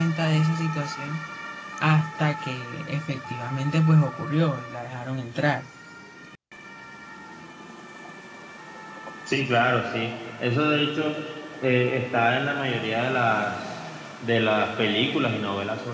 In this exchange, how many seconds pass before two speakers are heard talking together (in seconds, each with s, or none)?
none